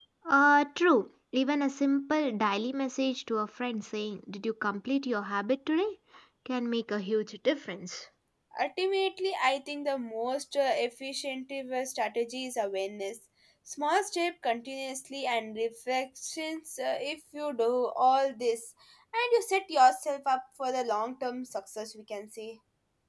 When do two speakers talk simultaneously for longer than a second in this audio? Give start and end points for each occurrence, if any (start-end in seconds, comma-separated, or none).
none